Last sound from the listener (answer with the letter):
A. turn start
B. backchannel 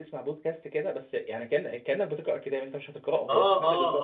A